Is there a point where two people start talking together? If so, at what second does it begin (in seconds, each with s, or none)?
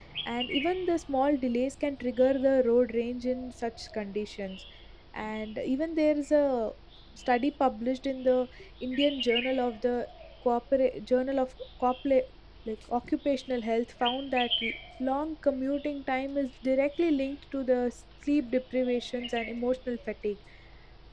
none